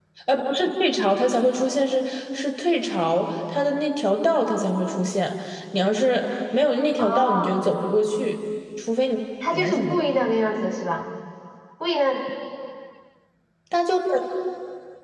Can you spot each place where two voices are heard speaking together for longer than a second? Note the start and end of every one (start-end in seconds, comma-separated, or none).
none